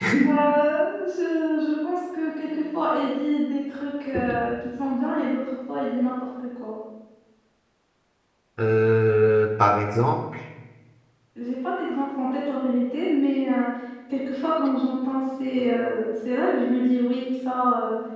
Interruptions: none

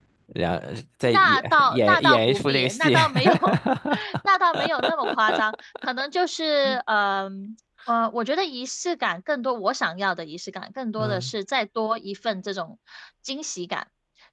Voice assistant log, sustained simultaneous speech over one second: present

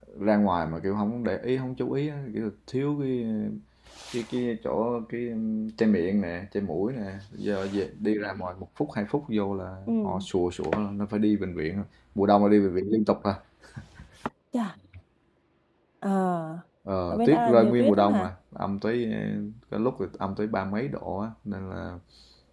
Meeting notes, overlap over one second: present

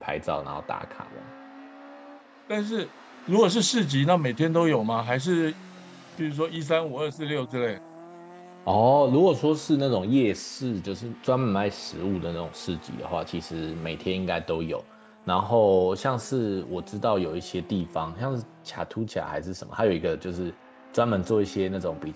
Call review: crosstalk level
none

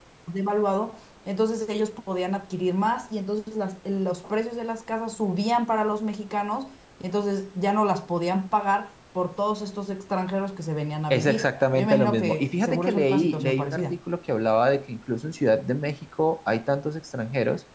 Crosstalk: present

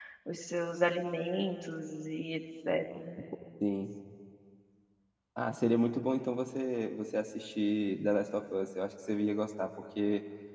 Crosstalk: none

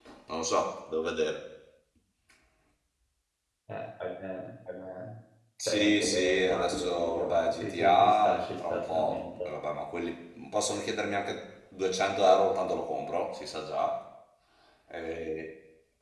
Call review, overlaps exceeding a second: present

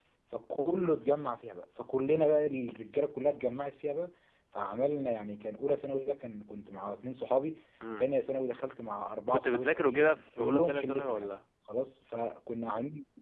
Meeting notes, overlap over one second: present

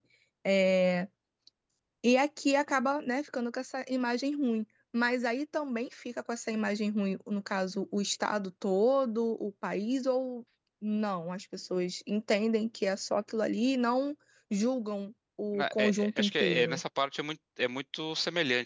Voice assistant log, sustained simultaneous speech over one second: present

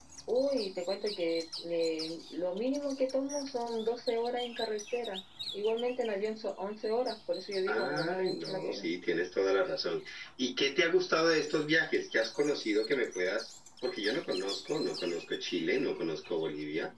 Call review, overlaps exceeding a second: present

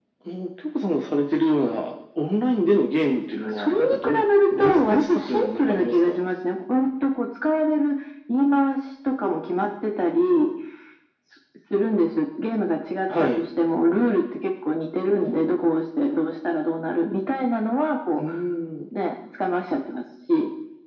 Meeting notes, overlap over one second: present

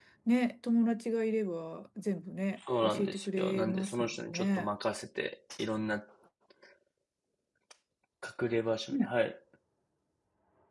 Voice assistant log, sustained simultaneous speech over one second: present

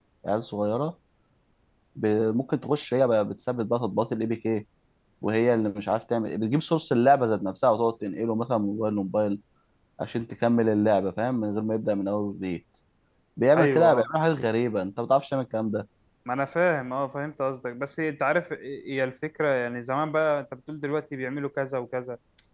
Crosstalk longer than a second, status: none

